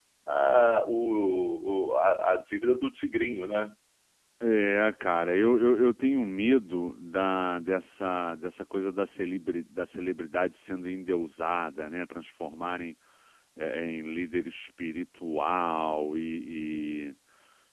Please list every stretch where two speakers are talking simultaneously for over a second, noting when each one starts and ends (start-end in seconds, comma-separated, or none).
none